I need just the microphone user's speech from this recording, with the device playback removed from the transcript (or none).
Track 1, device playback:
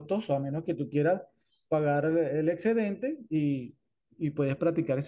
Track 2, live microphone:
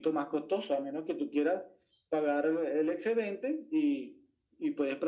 none